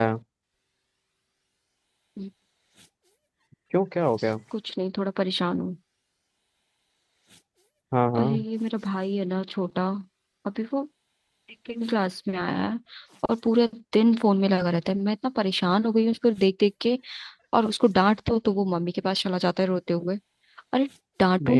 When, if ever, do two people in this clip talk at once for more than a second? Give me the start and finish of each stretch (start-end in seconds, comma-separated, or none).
none